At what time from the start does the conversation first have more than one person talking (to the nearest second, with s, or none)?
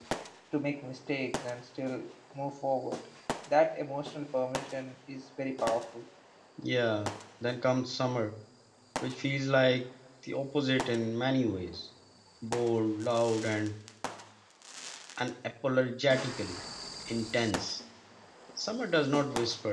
none